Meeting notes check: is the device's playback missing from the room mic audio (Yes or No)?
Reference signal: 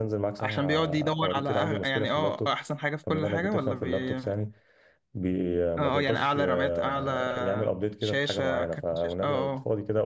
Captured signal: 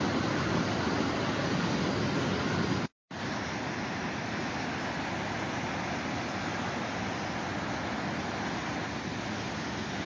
Yes